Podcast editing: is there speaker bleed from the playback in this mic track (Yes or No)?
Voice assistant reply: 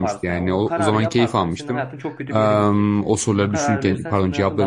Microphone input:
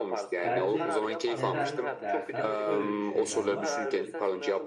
Yes